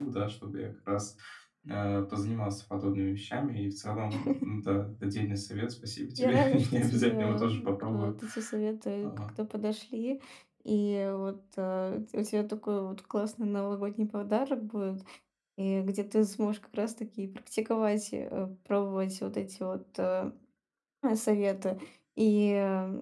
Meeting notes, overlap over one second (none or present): present